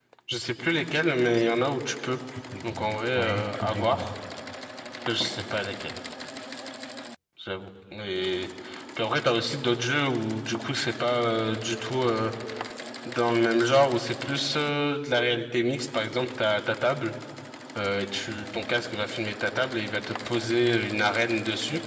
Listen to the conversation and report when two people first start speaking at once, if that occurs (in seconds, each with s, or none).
2.8 s